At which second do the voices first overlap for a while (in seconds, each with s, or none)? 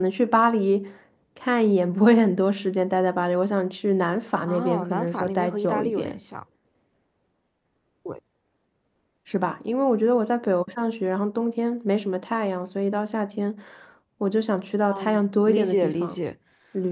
4.5 s